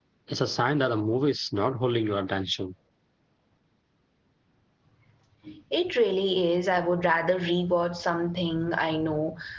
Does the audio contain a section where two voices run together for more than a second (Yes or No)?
No